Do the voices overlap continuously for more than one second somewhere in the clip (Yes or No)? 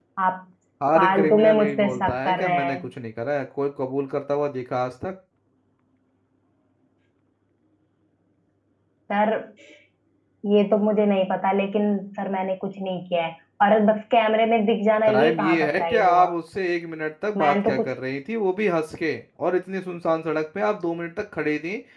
Yes